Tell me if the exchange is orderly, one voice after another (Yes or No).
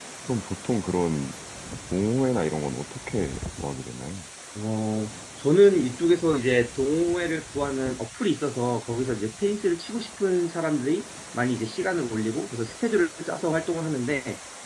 Yes